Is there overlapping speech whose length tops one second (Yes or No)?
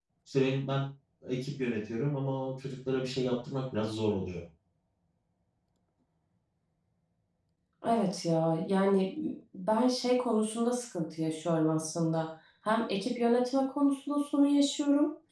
No